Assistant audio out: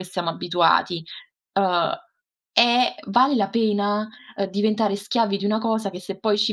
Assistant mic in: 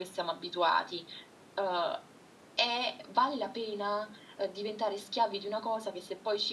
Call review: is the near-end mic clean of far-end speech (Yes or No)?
No